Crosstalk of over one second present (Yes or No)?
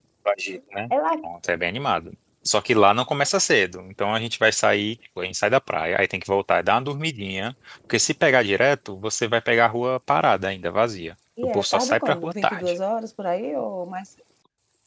Yes